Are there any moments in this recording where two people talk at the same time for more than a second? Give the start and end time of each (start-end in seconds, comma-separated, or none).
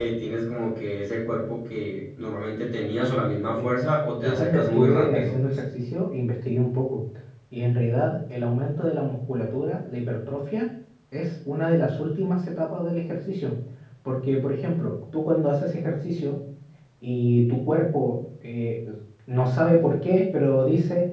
4.2-5.5